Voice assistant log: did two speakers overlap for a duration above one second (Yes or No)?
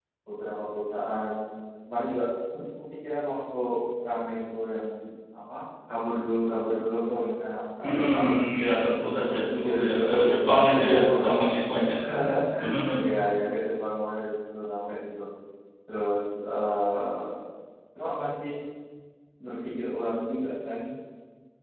Yes